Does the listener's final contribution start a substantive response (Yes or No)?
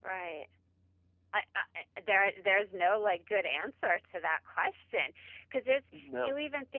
No